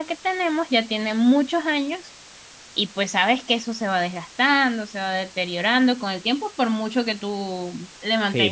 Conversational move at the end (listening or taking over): taking over